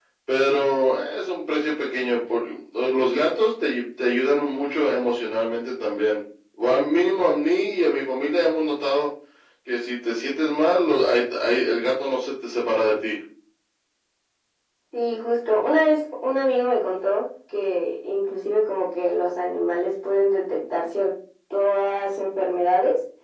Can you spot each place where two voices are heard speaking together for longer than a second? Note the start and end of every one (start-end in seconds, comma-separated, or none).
none